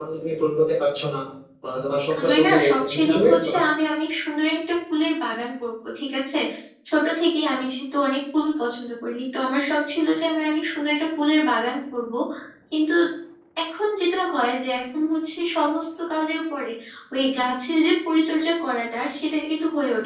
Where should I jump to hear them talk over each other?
2.2 s

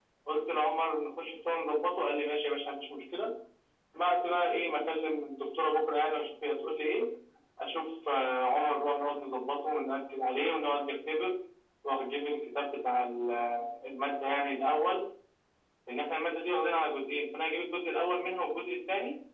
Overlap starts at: none

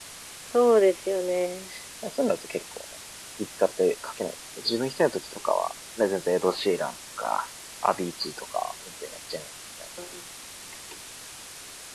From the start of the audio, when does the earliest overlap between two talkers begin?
none

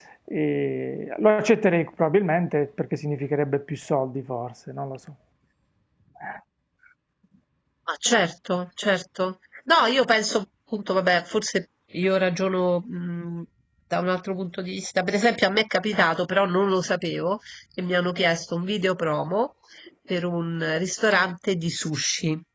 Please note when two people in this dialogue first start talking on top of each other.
none

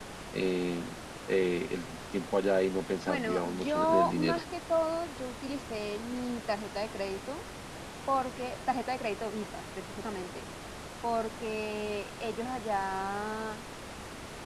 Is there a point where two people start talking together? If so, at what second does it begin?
3.1 s

